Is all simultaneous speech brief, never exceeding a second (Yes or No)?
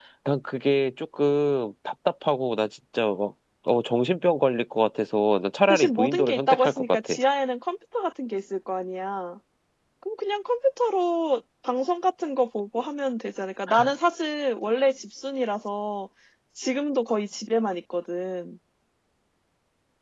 No